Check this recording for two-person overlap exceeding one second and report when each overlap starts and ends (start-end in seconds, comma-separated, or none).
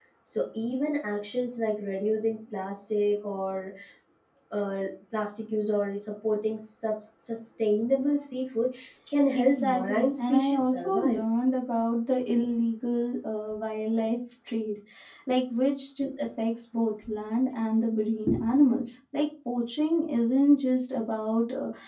9.3-11.2